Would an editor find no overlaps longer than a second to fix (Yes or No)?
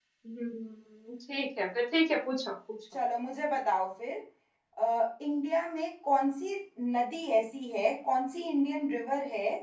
Yes